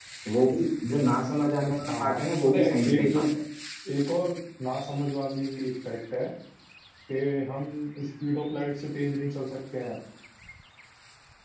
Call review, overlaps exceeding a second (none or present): present